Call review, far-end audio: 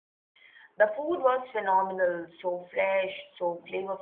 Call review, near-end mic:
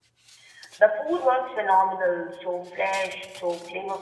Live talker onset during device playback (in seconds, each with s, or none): none